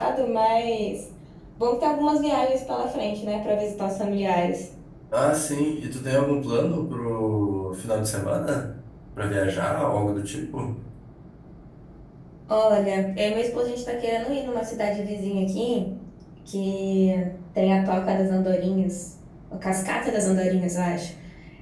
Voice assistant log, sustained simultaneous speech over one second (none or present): none